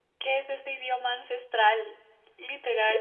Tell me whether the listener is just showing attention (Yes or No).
No